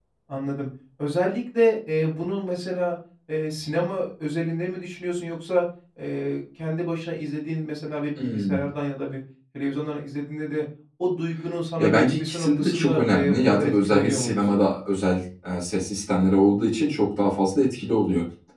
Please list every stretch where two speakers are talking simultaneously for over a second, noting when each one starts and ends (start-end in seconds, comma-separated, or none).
11.8-14.6